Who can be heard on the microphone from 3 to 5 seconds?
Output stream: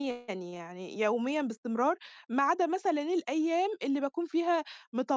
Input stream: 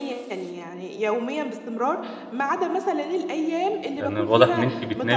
both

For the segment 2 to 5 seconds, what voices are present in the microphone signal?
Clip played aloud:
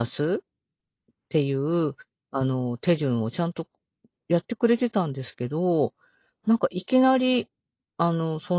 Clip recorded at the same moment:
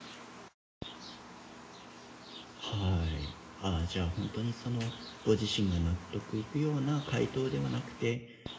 user only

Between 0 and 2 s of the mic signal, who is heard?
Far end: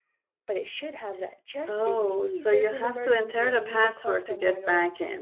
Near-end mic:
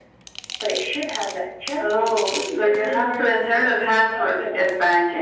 echo only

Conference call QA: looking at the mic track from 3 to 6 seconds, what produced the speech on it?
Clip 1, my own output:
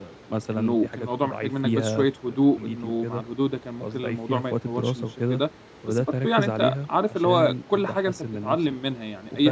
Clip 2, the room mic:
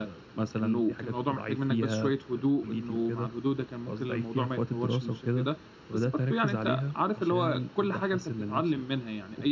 echo only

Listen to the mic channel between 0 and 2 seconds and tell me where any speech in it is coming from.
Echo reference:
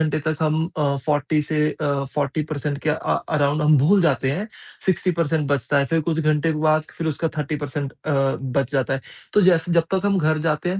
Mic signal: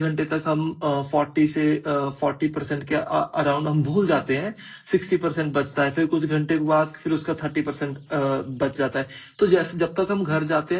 echo only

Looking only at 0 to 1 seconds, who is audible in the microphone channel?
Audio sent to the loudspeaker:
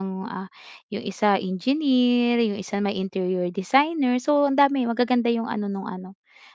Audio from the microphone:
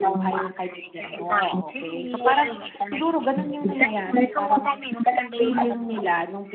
both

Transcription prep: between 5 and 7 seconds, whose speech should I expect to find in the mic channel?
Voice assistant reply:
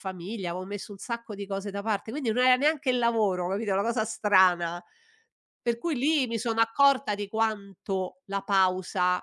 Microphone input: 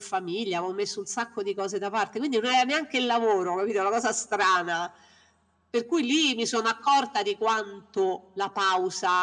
echo only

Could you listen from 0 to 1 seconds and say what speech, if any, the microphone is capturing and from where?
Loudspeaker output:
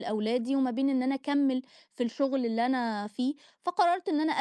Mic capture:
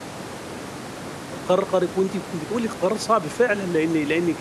neither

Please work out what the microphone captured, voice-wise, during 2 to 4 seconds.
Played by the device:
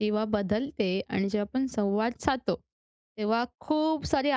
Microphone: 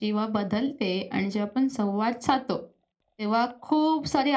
echo only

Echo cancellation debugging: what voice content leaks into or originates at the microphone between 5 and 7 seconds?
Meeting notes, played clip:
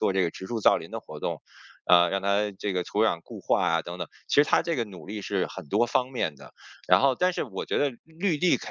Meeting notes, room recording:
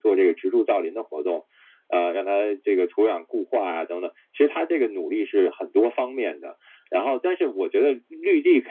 echo only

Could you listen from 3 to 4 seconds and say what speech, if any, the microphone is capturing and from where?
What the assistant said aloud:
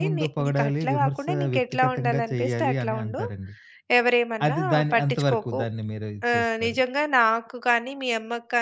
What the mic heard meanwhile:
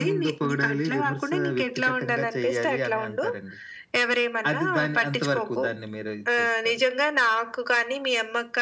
echo only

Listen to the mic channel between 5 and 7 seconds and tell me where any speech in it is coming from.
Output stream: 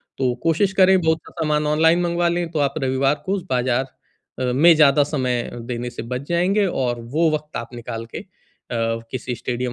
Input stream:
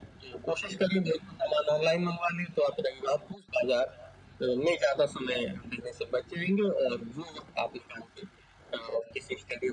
echo only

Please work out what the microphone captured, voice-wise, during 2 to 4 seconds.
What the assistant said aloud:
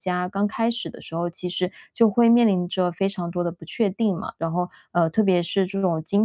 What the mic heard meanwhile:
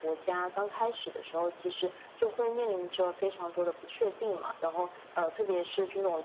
echo only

